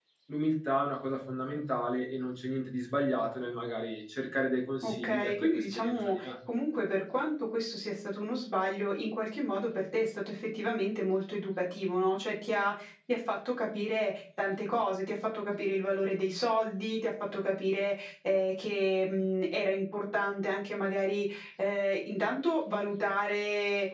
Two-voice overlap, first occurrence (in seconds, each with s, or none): 4.8 s